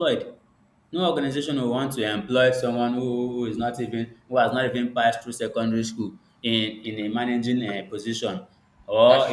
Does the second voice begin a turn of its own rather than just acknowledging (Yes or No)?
No